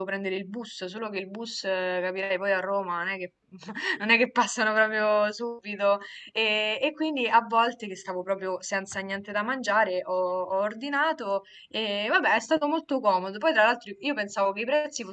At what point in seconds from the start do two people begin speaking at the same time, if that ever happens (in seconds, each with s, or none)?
none